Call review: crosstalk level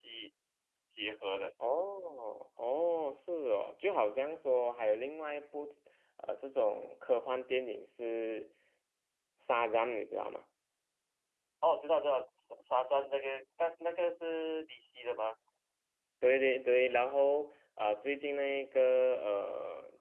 none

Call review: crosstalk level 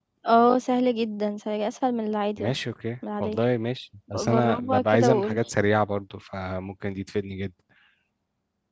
present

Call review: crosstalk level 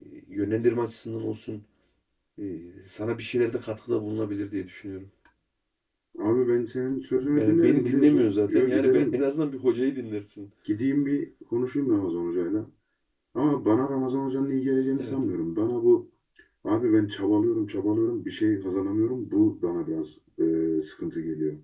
present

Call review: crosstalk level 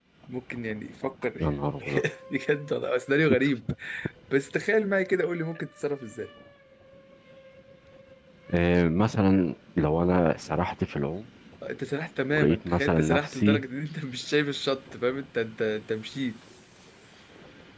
present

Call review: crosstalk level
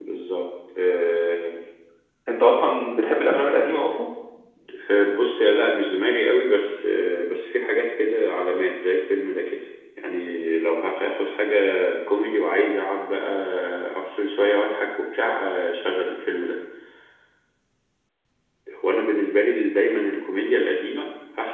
none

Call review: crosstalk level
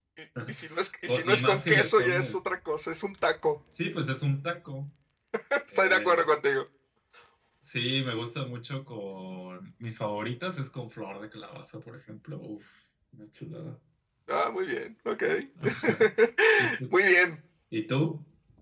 present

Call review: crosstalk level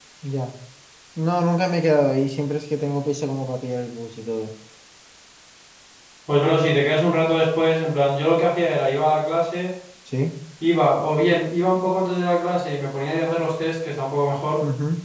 none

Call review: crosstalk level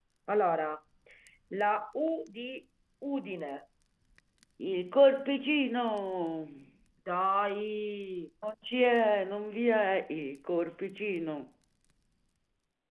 none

